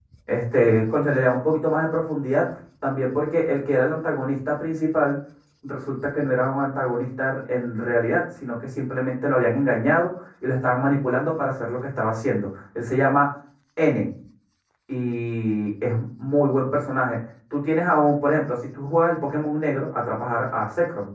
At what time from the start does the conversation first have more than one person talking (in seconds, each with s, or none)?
none